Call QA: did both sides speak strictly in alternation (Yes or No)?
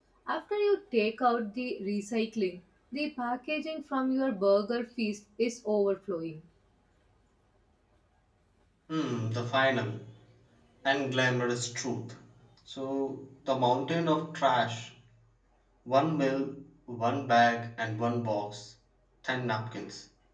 Yes